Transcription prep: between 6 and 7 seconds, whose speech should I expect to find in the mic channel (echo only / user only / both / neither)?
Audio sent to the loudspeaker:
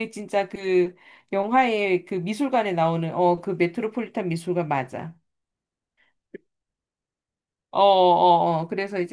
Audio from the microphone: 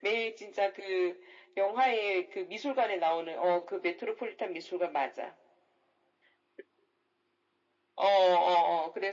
neither